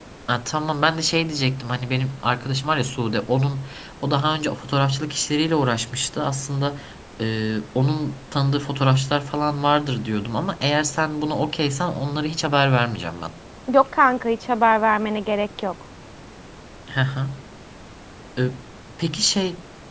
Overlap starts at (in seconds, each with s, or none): none